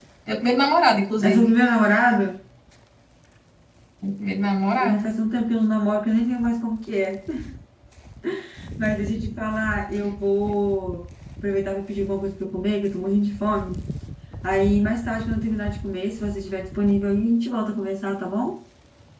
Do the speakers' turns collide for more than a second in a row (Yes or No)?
No